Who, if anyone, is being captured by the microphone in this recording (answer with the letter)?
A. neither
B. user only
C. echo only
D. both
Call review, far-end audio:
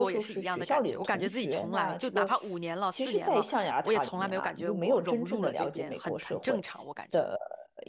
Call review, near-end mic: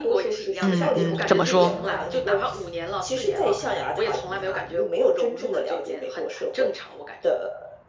D